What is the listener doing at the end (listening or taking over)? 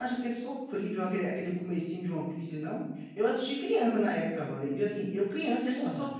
listening